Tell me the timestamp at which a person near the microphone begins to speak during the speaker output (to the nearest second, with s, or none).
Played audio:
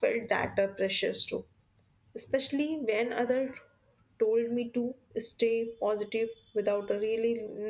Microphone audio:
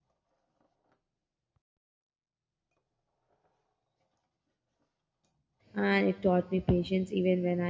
6 s